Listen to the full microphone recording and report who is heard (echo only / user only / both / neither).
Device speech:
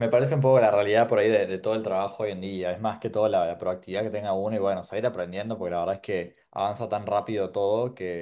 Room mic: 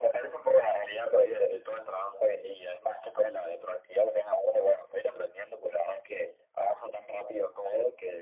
echo only